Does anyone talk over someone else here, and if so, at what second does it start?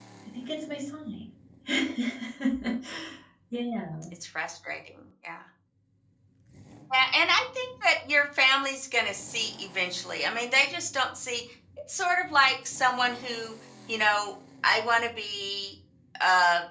none

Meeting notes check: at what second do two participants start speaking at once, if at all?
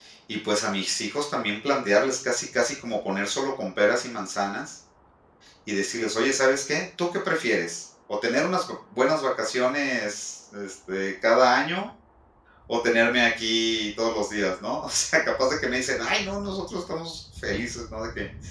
none

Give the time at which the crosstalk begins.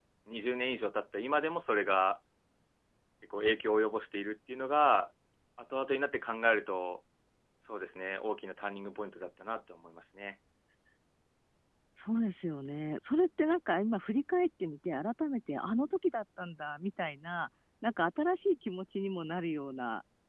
none

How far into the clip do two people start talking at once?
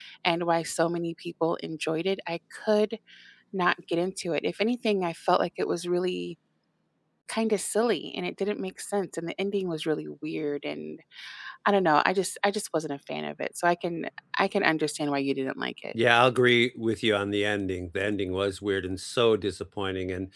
none

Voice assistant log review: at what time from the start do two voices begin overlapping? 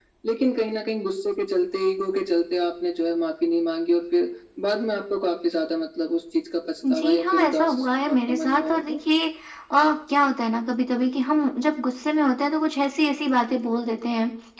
7 s

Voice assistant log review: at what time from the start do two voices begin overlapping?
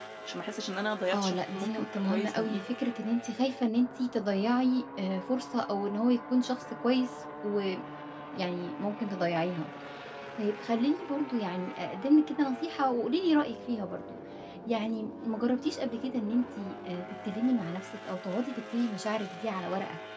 1 s

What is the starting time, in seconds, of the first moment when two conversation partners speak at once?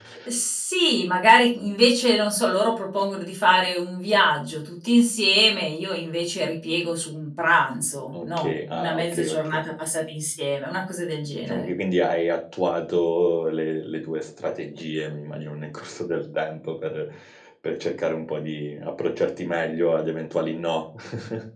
8 s

